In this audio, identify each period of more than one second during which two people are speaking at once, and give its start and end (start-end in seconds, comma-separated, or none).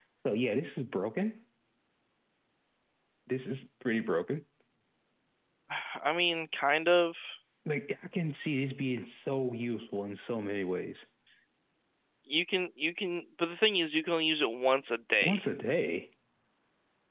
none